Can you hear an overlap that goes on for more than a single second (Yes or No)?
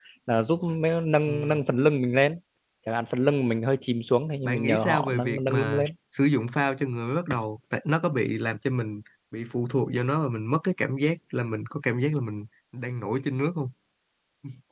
Yes